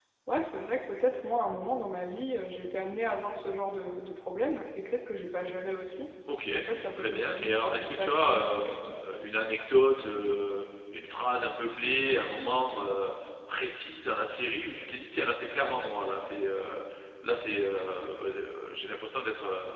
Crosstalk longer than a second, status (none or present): present